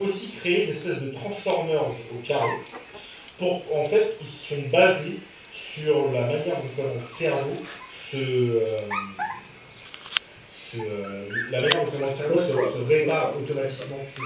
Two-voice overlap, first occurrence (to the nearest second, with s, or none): 12 s